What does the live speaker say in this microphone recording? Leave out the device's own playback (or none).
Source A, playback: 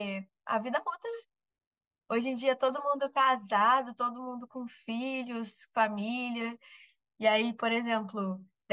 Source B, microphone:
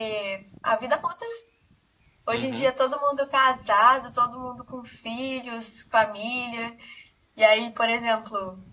uhum,